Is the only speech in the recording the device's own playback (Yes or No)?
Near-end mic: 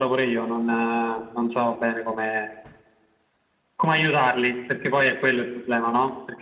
Yes